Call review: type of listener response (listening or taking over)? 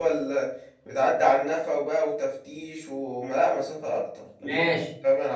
taking over